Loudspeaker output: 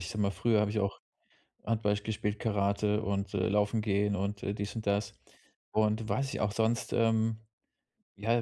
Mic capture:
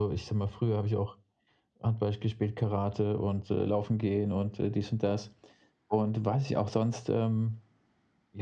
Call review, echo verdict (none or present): present